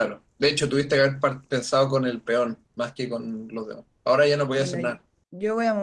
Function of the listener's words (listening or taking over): taking over